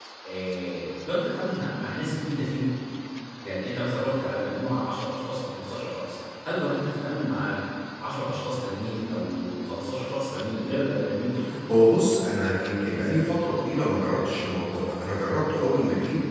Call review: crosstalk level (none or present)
none